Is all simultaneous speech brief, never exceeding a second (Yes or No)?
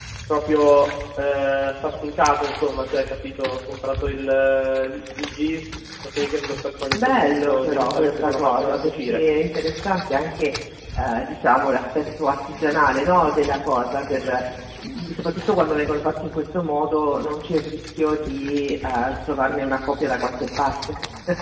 No